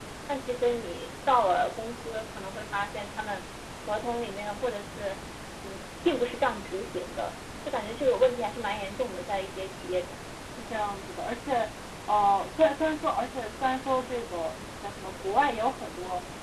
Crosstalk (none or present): none